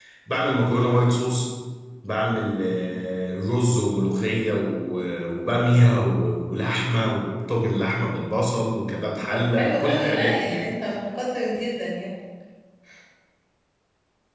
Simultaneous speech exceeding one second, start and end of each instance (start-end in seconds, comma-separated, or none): 9.3-10.6